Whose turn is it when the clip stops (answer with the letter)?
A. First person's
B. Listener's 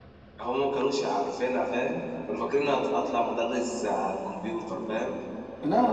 A